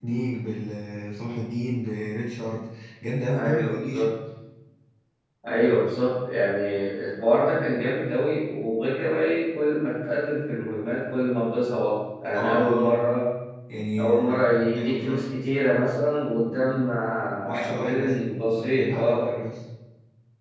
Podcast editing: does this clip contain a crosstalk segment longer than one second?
Yes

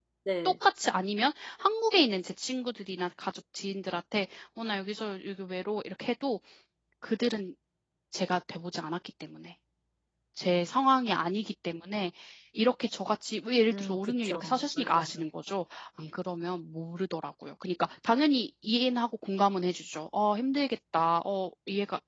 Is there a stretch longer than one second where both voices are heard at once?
Yes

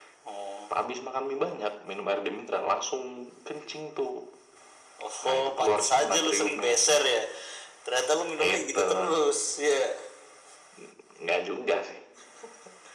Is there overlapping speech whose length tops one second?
Yes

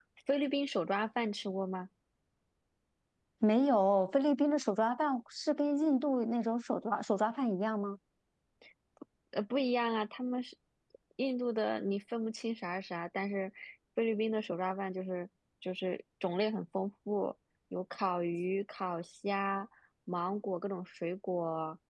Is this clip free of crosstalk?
Yes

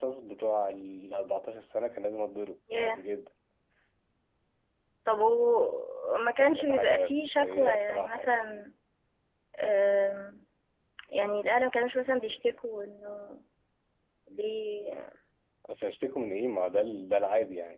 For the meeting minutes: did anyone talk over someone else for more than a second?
Yes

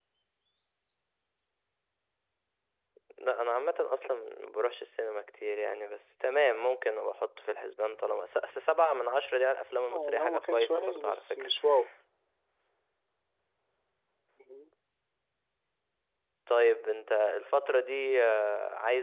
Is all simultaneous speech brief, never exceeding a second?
No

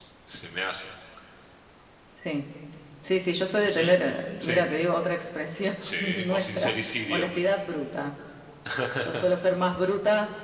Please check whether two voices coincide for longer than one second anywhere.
Yes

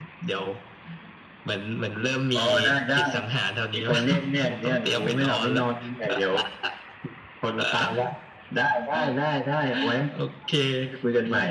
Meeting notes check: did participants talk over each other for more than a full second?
Yes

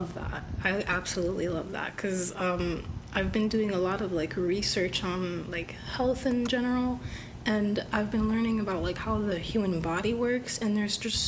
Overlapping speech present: No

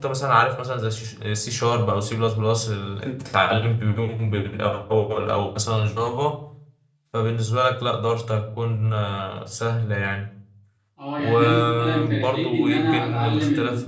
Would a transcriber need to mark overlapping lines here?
Yes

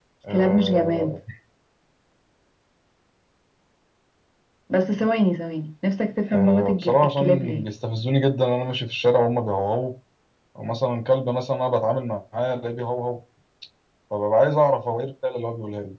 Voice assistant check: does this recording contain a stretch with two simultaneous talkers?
Yes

